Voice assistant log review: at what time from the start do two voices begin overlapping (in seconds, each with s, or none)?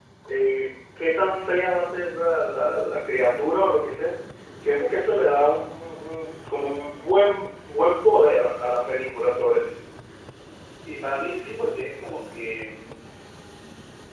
none